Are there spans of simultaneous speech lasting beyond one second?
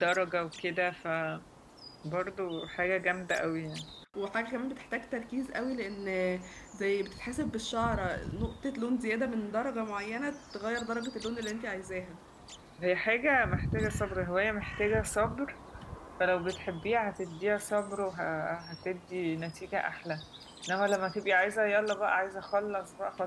No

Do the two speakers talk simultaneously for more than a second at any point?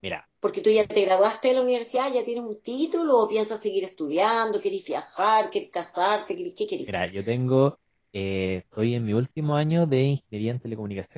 No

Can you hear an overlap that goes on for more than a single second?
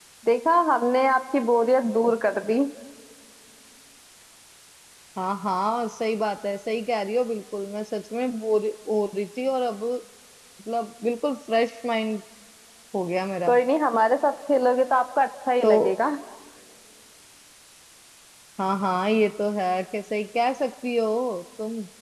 No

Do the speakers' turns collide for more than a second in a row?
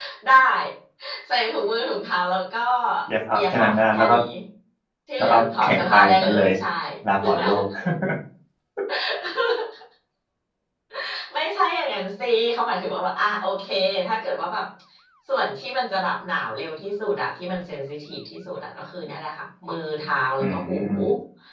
Yes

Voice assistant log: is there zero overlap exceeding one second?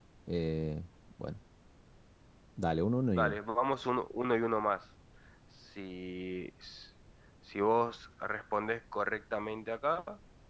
Yes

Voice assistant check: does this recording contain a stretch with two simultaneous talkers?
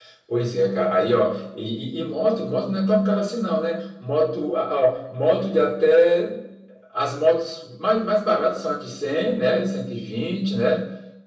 No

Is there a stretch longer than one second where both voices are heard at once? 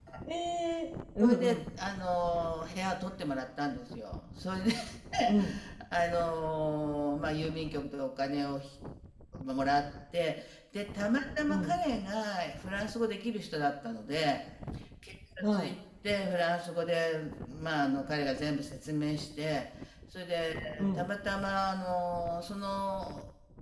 No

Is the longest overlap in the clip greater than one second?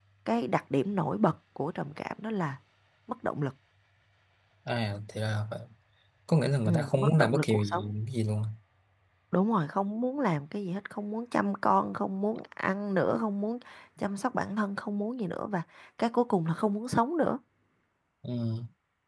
Yes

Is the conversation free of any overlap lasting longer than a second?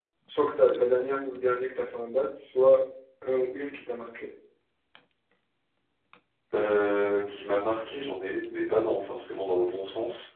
Yes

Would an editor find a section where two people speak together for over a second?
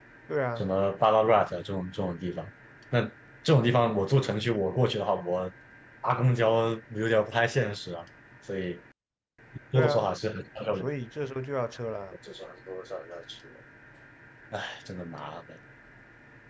No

